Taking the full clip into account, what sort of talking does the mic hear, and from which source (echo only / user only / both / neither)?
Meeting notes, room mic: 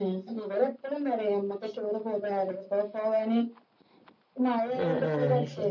both